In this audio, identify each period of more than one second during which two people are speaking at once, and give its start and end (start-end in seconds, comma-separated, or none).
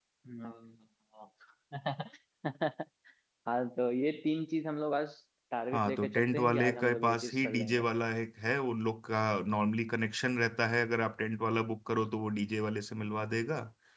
5.7-7.9